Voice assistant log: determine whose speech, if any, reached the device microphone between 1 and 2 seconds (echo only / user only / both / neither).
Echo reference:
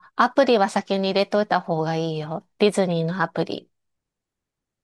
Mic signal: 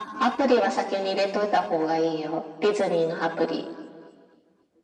echo only